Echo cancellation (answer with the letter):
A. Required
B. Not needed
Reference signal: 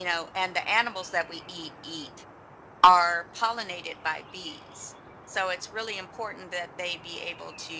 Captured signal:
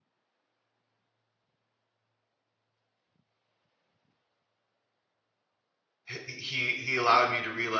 B